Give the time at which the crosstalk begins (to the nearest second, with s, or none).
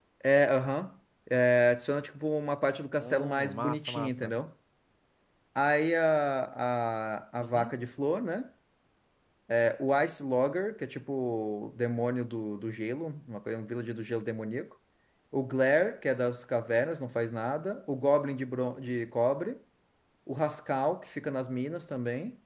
3 s